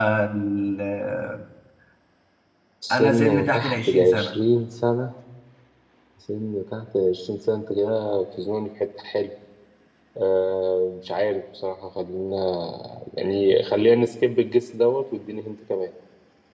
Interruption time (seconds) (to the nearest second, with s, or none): 3 s